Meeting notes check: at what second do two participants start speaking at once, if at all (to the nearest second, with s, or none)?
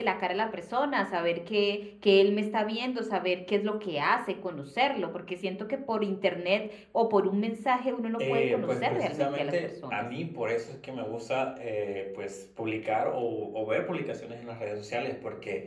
8 s